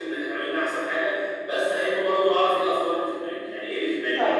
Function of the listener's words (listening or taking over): taking over